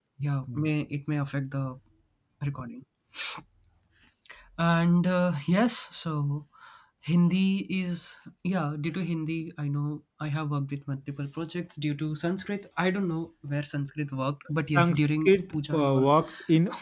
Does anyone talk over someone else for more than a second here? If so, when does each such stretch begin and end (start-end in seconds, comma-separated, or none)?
14.8-16.1